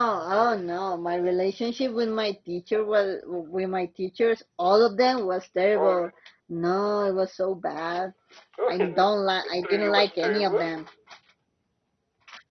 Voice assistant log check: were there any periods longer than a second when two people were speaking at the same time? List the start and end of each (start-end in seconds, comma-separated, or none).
9.4-10.7